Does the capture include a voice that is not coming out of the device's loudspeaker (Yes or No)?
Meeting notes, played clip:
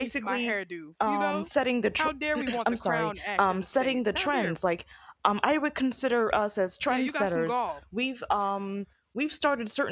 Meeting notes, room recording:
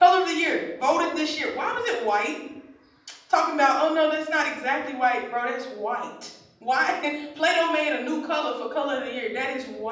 Yes